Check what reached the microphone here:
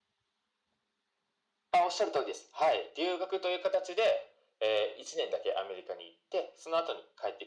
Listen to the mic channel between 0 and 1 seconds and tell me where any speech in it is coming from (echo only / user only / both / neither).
neither